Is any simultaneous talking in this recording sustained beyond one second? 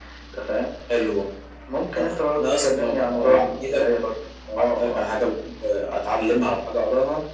Yes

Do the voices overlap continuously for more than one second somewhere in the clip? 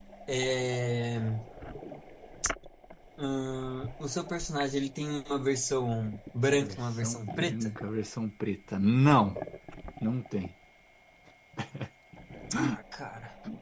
Yes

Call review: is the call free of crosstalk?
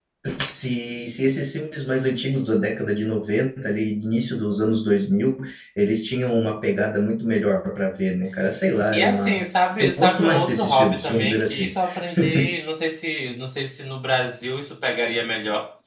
No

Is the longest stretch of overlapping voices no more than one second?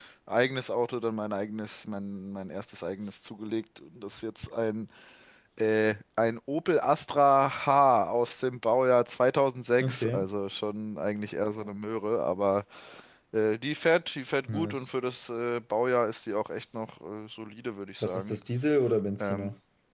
Yes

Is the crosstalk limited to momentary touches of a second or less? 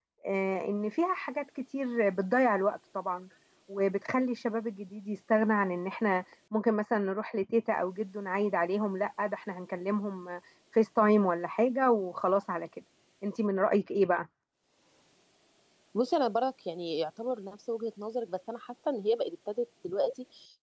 Yes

